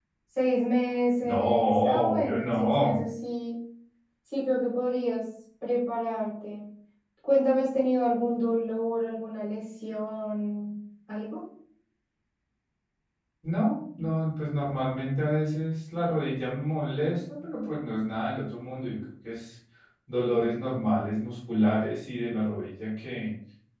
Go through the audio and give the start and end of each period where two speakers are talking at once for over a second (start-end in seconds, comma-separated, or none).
1.2-3.0